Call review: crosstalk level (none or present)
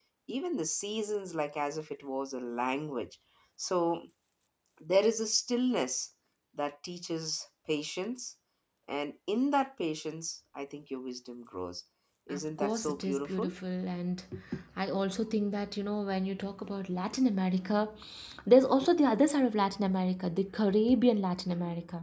present